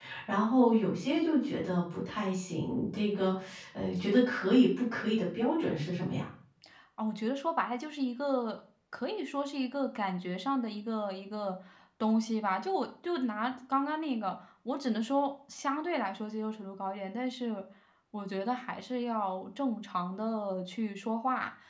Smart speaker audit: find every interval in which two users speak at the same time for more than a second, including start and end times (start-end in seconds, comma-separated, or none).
none